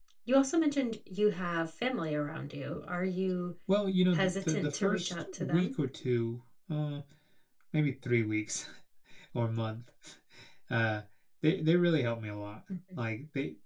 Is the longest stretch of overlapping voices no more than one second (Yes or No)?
No